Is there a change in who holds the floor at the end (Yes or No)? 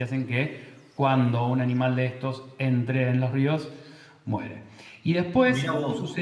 No